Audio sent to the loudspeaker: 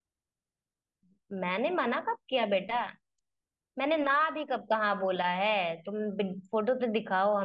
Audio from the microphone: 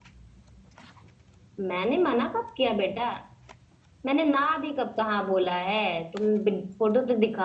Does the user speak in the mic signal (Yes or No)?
No